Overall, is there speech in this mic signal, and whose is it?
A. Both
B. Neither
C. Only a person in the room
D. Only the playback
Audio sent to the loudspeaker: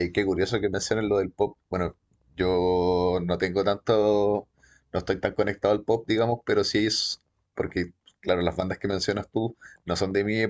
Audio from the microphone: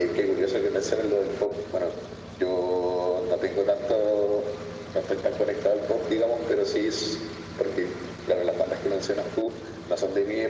D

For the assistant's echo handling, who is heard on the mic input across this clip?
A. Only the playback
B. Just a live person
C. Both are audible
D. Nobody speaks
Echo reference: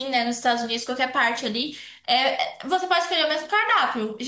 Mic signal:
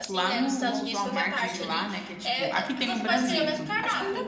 C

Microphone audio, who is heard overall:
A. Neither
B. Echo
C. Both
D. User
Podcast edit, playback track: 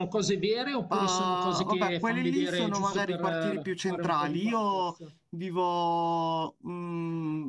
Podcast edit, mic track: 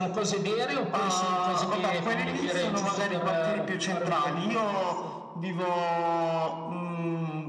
B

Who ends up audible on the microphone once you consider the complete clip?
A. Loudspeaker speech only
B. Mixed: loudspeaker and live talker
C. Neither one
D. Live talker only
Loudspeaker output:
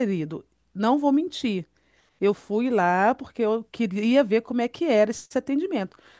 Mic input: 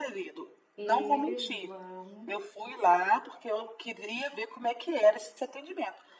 B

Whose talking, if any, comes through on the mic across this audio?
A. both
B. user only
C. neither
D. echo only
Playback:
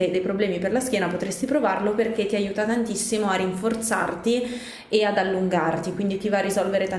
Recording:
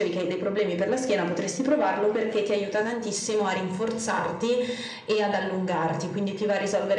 D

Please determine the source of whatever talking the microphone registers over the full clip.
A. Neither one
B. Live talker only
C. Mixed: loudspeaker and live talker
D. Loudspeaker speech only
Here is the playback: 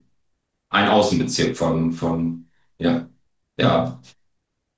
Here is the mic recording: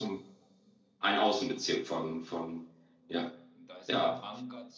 C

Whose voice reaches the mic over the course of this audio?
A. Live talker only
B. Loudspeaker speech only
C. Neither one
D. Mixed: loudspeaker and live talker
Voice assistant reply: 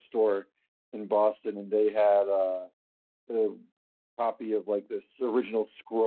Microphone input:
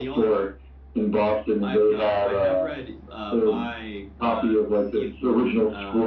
D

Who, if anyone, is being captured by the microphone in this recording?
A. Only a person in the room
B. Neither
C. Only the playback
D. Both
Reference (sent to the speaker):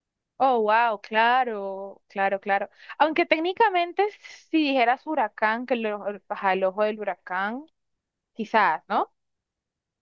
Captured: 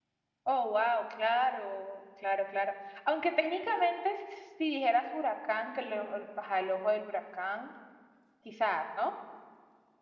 C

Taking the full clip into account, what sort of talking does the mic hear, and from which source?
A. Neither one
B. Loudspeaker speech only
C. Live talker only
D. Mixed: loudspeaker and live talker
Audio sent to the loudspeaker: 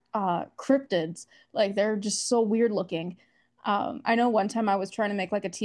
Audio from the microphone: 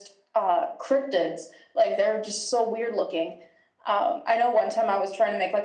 B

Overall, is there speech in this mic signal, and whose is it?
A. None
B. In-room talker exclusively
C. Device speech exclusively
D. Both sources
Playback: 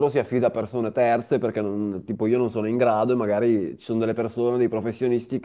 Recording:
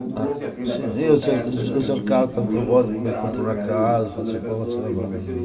D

